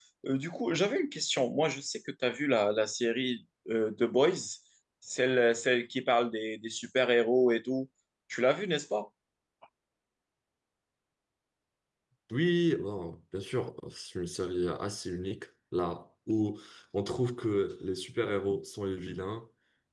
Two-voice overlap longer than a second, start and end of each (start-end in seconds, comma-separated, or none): none